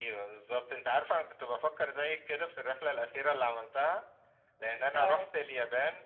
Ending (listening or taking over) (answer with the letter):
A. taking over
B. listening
B